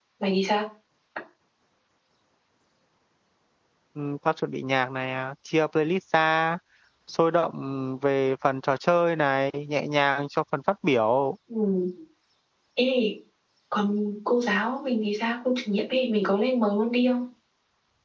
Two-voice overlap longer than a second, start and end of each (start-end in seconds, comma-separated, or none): none